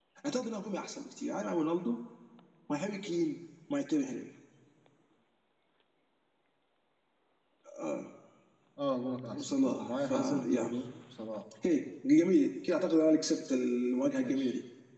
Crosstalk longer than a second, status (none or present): present